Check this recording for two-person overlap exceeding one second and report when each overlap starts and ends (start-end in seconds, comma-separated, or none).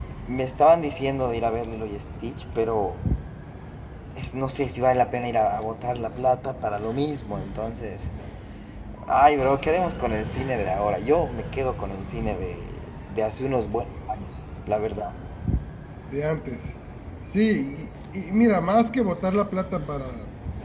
none